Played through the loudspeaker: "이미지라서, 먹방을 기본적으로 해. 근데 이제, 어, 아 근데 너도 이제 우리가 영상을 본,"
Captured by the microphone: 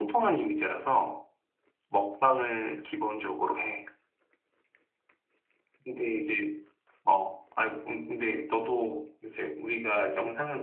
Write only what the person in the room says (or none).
none